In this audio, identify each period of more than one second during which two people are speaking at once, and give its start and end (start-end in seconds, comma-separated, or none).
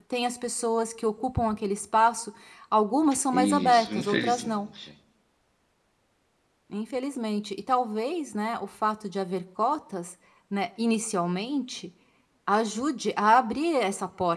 3.3-4.5